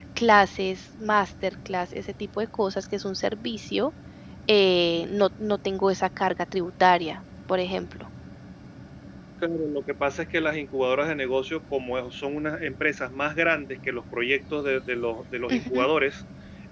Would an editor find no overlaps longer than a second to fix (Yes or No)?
Yes